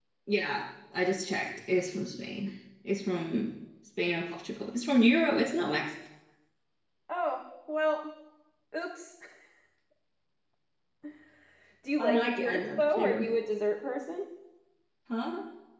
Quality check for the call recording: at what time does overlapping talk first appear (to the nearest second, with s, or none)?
12 s